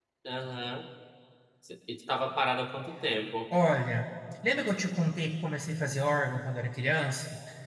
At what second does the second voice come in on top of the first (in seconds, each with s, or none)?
none